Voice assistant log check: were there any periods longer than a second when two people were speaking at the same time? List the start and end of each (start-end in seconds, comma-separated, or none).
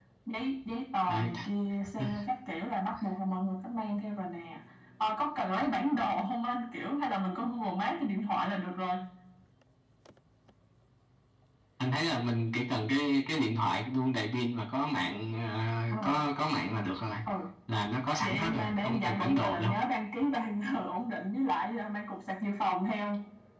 18.2-19.7